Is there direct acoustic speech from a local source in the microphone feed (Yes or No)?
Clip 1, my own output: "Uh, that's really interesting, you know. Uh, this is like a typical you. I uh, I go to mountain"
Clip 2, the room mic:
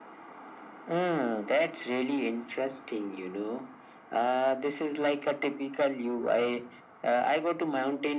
No